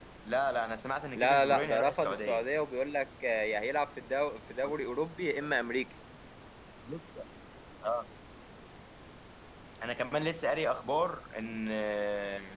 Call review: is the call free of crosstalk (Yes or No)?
No